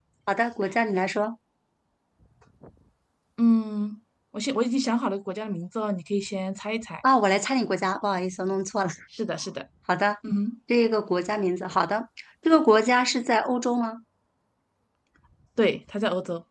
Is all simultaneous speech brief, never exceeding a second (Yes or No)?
Yes